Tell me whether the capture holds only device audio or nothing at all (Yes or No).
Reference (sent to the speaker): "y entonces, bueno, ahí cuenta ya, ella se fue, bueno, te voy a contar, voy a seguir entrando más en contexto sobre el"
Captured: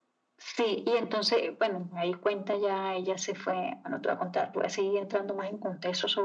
Yes